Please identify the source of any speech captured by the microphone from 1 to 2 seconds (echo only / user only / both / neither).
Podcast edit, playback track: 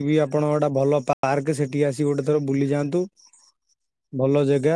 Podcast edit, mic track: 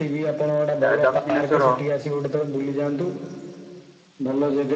both